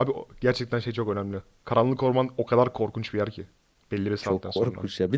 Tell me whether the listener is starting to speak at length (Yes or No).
Yes